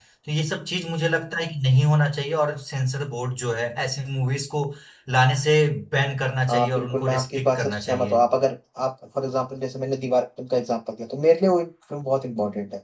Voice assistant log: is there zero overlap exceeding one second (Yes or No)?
No